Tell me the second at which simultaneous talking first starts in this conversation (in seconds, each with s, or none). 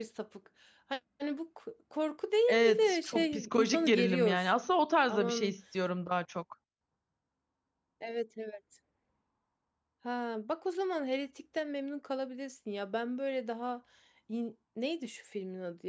2.5 s